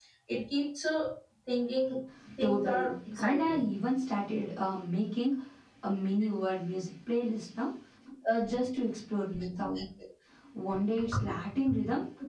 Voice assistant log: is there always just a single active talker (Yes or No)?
No